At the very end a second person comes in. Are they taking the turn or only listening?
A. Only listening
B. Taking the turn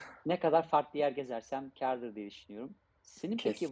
A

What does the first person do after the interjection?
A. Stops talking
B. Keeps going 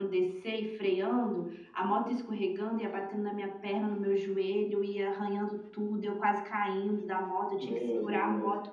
B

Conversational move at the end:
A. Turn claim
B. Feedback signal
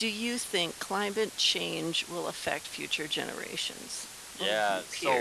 A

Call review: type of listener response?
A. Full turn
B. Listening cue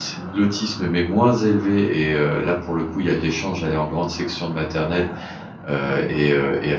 B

